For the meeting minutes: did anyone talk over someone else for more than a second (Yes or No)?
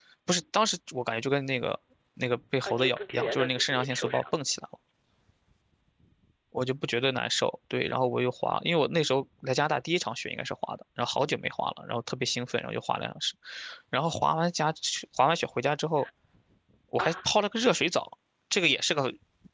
Yes